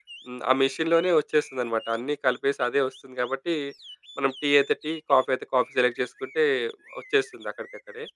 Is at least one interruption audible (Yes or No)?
No